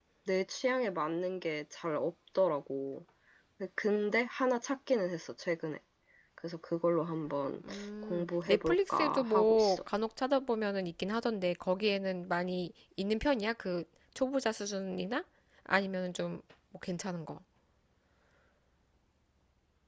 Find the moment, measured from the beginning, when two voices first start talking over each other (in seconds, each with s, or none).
7.6 s